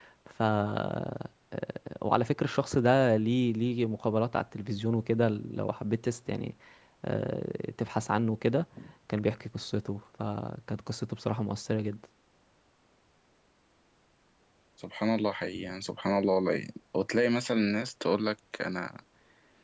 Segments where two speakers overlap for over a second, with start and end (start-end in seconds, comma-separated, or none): none